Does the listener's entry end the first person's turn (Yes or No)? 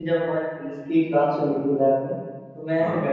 No